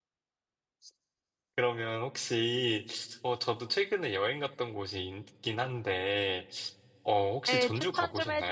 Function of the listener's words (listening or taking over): taking over